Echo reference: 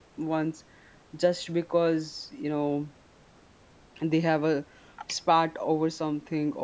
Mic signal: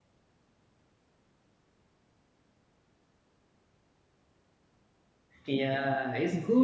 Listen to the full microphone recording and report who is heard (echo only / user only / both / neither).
user only